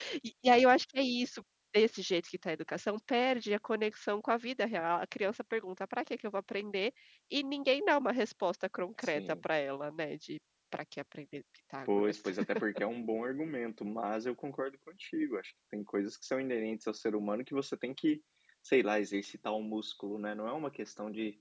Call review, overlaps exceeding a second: none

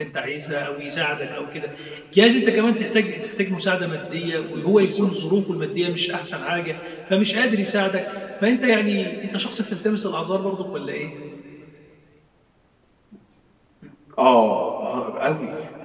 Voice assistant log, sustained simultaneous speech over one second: none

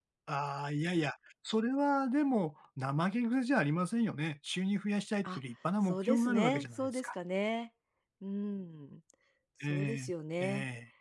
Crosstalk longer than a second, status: present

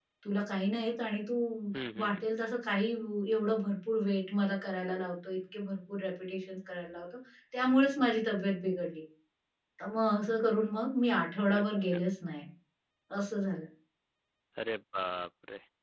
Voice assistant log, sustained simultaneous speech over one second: none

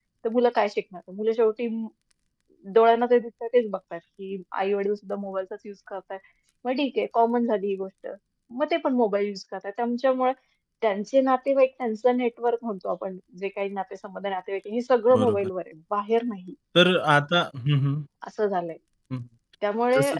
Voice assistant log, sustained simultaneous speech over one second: none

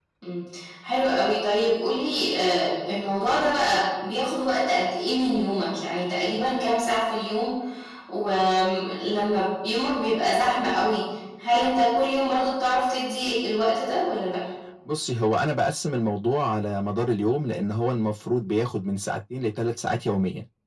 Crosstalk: none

